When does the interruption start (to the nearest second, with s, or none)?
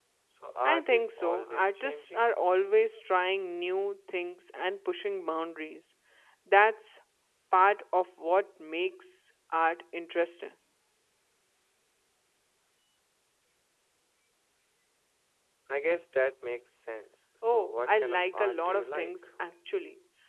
1 s